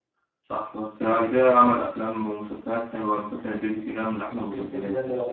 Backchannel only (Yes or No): No